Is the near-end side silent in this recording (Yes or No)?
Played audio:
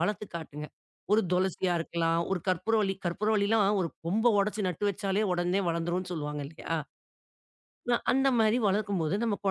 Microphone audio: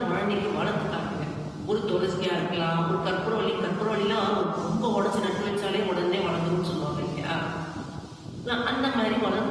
Yes